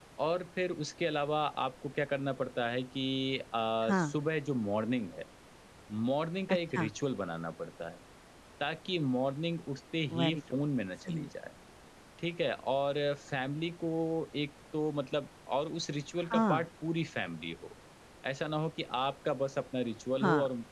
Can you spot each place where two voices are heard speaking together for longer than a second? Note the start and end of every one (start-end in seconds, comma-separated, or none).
none